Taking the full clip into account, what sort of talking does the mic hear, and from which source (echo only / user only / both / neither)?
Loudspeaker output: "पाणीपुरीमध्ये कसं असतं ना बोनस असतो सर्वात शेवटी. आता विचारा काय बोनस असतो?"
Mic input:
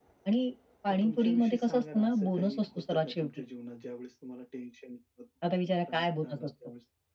both